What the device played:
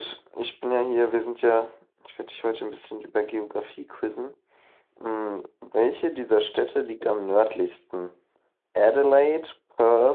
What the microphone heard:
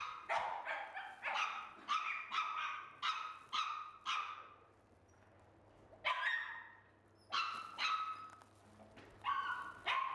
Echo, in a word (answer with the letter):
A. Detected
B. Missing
B